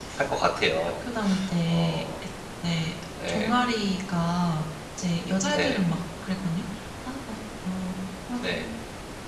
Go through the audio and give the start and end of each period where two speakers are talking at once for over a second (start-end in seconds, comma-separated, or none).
none